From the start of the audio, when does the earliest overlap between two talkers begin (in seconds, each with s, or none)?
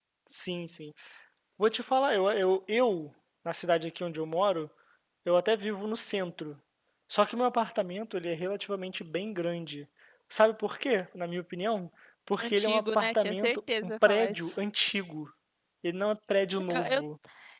12.4 s